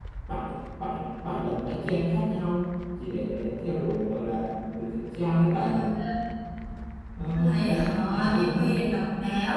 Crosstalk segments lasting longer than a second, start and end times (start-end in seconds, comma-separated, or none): 7.3-8.7